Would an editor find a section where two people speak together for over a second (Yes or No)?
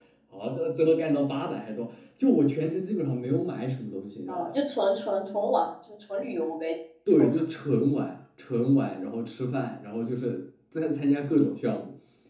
No